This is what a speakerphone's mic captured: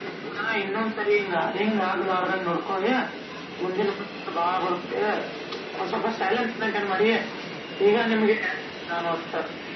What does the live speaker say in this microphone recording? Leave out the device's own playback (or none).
none